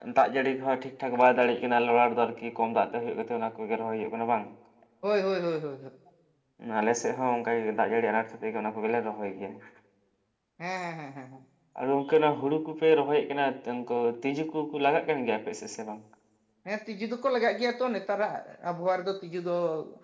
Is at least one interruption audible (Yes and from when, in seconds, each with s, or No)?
No